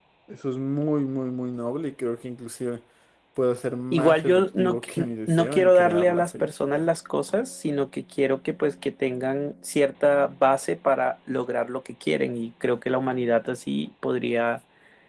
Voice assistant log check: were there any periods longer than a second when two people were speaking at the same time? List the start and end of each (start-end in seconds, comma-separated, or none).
3.9-6.9